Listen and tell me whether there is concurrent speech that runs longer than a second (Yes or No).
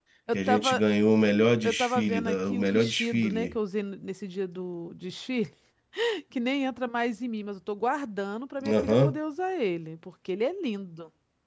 Yes